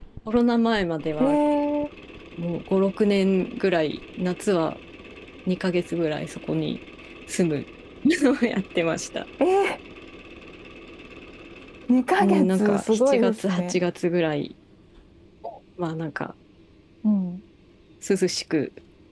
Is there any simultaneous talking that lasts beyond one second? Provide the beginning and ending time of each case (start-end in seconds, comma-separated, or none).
12.2-13.8